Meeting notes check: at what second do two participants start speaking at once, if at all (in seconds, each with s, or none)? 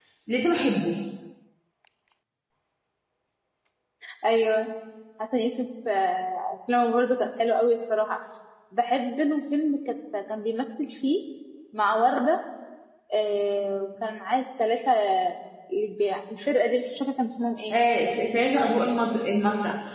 none